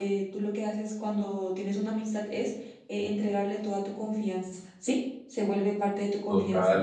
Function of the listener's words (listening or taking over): taking over